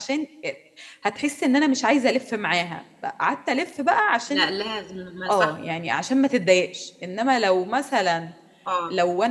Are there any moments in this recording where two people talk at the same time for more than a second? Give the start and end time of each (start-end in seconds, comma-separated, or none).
none